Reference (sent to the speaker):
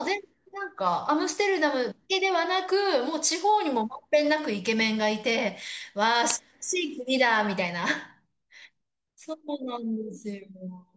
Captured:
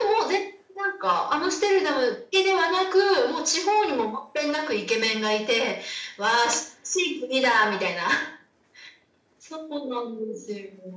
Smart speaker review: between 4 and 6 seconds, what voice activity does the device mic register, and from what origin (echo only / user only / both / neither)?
echo only